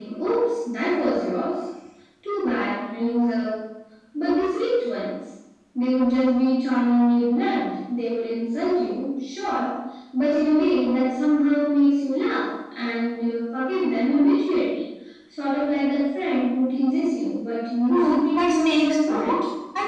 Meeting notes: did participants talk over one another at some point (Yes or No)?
Yes